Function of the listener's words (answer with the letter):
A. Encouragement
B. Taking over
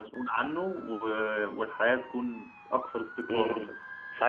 B